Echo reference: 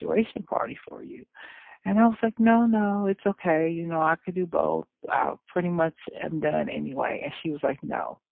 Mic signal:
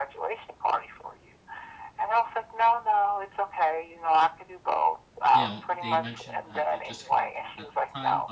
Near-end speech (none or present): present